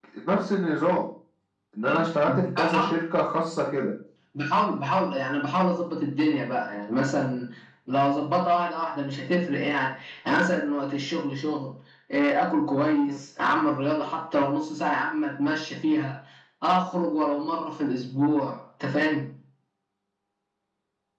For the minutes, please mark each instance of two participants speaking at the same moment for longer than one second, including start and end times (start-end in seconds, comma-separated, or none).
none